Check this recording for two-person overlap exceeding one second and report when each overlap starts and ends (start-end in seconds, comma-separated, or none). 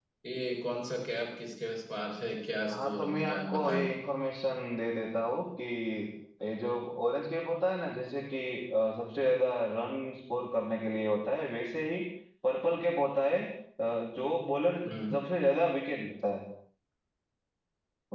2.7-3.9